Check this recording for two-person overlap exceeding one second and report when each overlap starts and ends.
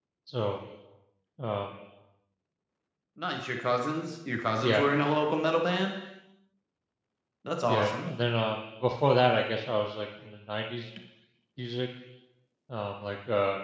none

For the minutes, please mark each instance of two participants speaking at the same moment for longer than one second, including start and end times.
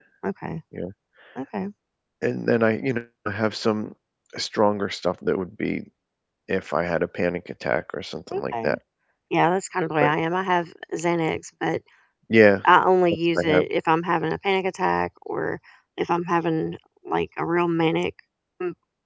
none

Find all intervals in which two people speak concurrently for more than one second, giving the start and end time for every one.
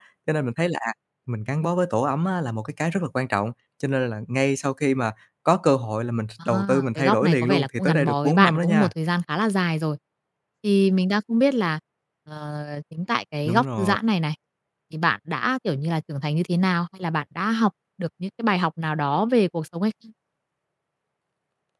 6.5-8.9

